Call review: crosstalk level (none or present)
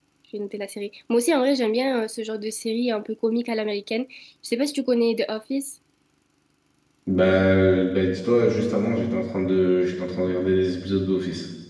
none